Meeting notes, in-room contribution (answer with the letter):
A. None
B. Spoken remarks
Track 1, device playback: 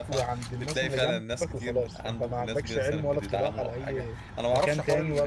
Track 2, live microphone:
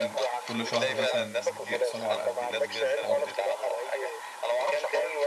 B